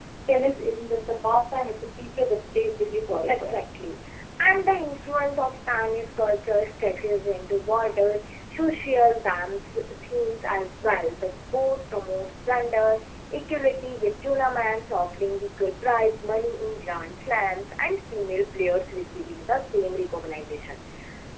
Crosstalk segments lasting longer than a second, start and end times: none

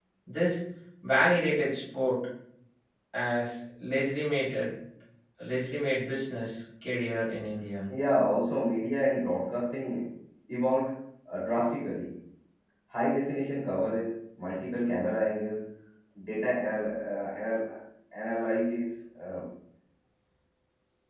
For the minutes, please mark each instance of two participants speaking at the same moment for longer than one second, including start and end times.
none

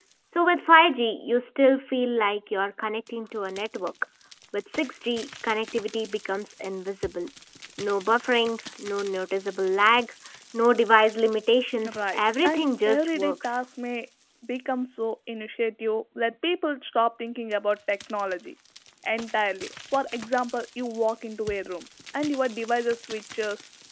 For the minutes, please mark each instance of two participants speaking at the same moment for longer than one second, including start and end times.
11.9-13.6

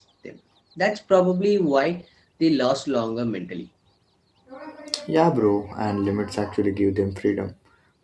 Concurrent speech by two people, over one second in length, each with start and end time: none

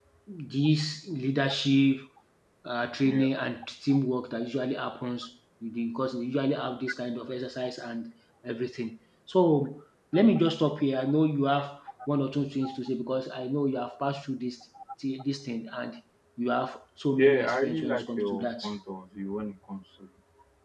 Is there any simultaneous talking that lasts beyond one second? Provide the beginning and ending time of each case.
17.2-18.5

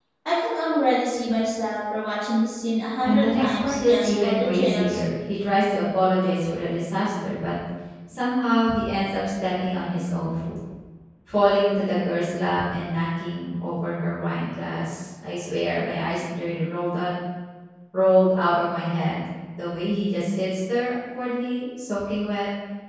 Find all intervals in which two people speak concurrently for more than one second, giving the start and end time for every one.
3.0-5.0

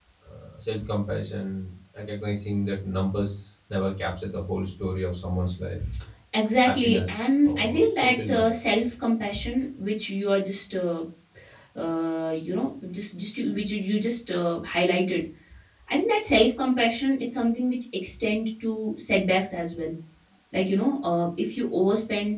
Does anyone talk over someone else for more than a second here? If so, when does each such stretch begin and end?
6.7-8.6

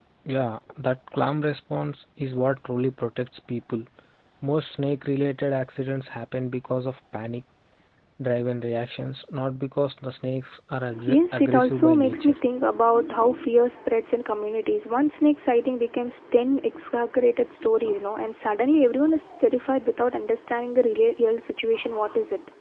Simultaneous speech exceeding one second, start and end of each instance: 11.1-12.3

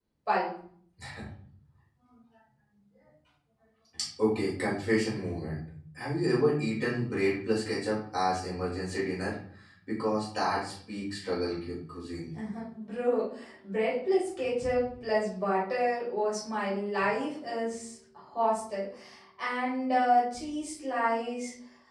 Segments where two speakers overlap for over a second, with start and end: none

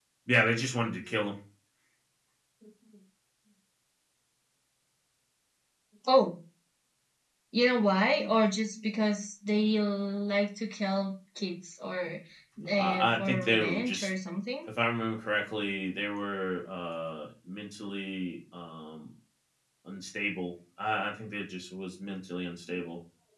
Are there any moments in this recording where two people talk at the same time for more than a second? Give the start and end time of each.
12.8-14.1

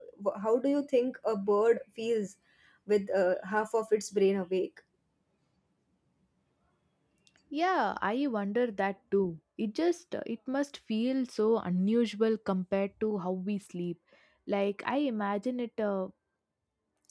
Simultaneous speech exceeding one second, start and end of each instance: none

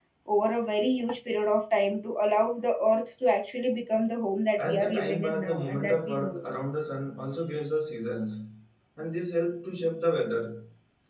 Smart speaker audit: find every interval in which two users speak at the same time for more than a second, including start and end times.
4.6-6.4

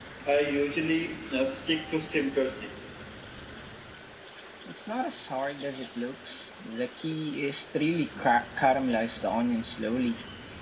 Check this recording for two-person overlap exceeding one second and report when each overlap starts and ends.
none

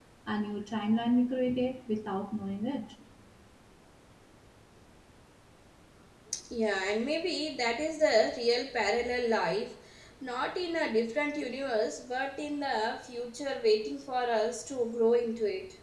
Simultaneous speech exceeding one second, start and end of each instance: none

